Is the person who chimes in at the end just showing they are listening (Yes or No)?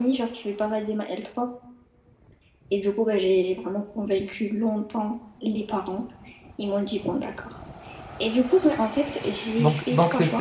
No